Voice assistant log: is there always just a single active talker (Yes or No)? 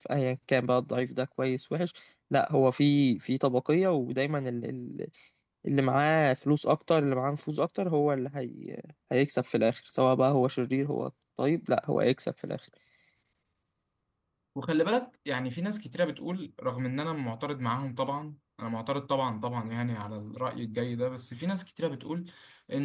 Yes